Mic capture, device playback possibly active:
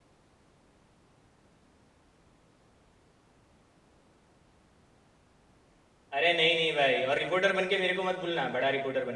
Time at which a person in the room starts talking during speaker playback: 6.2 s

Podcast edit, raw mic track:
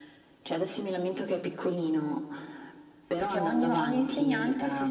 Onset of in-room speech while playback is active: 3.2 s

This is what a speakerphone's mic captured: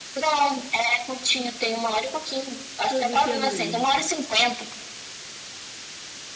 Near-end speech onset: 2.9 s

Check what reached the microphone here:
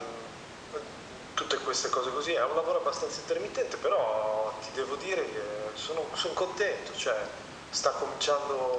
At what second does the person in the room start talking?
none

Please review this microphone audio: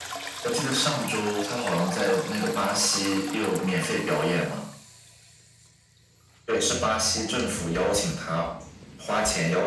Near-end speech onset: none

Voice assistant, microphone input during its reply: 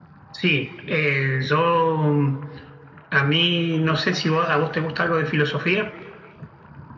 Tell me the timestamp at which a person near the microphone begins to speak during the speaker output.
none

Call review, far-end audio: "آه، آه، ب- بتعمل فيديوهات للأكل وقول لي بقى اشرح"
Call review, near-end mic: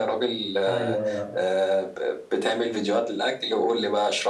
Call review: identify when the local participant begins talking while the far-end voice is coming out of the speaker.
0.7 s

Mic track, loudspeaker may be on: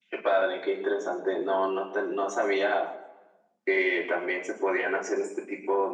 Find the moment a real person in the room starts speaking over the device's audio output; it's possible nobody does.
none

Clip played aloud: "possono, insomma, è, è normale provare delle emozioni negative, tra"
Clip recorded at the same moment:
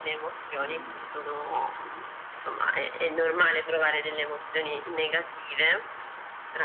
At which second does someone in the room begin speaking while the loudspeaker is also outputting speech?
0.5 s

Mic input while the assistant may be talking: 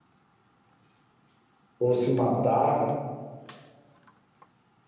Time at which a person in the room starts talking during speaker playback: 1.8 s

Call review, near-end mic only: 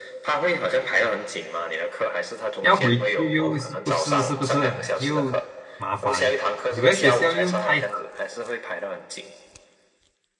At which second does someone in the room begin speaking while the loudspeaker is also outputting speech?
2.6 s

